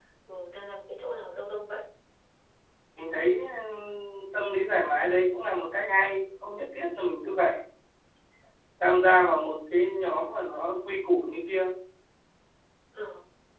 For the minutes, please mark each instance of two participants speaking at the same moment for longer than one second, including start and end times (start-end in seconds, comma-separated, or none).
none